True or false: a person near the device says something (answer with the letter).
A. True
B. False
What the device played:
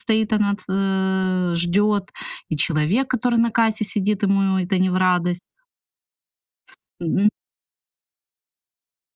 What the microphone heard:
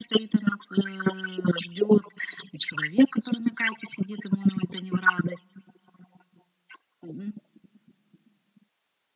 B